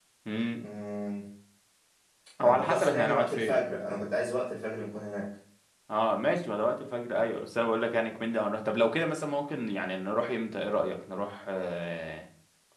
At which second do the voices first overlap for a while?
2.4 s

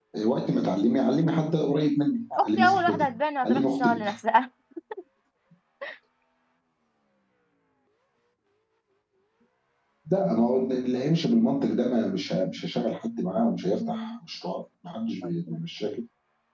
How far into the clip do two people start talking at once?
2.5 s

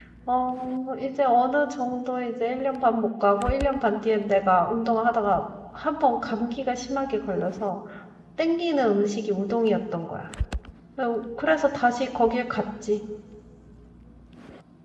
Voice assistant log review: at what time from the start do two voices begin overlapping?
none

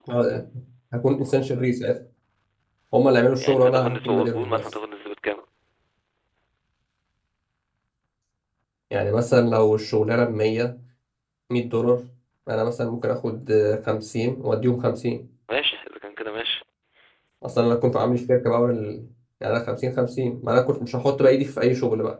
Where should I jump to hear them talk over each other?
3.4 s

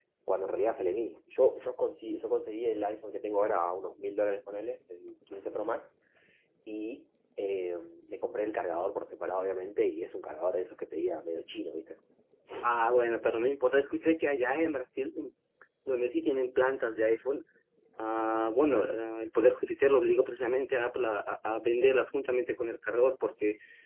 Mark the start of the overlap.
none

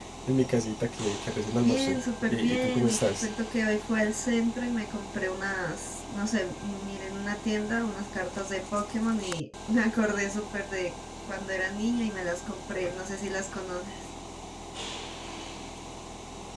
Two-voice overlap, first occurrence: 1.5 s

